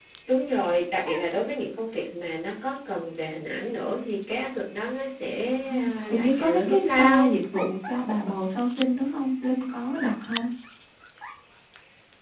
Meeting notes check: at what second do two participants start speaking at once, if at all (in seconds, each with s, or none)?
5.6 s